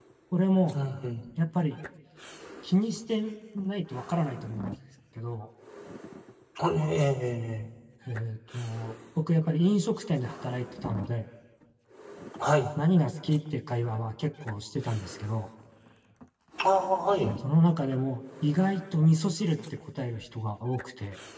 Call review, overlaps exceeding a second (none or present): none